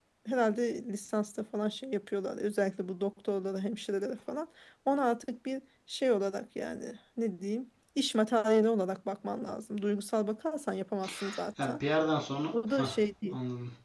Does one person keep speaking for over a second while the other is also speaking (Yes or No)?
No